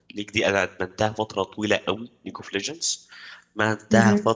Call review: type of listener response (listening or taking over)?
listening